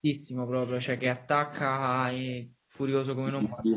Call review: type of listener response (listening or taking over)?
taking over